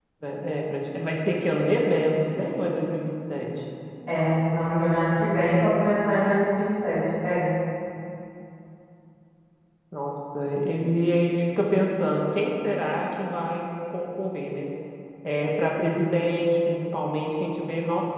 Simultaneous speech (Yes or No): No